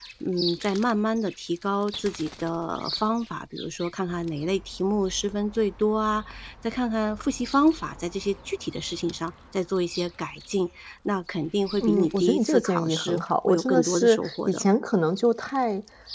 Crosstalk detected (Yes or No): Yes